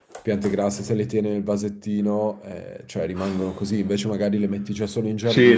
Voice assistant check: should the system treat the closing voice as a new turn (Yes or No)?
Yes